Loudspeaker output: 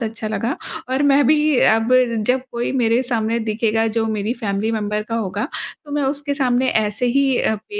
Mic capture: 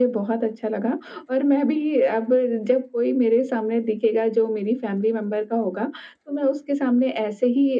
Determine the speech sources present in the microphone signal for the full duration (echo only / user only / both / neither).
echo only